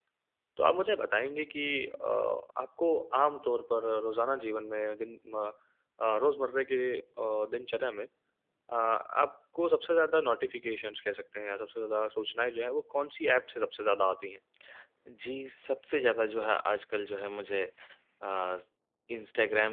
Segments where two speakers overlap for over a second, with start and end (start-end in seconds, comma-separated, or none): none